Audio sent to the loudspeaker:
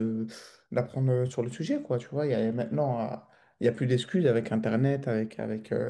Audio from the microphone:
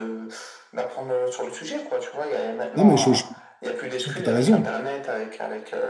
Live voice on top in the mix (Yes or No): Yes